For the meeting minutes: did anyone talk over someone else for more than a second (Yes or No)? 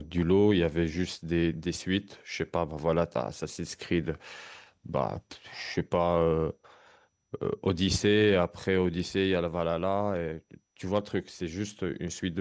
No